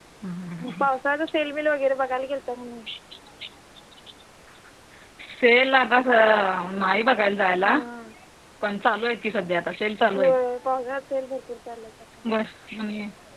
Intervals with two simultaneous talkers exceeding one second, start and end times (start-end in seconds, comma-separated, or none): none